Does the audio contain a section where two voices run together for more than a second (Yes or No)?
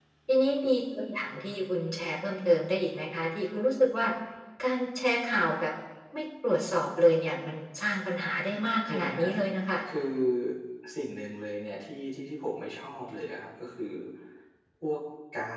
No